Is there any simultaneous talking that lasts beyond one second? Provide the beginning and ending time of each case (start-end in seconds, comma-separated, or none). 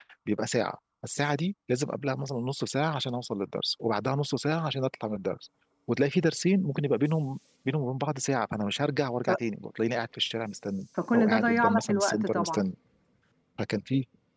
11.1-12.6